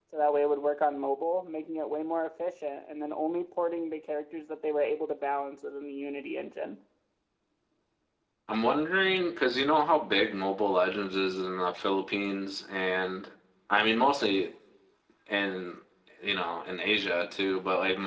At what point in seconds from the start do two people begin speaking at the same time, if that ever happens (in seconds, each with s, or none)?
none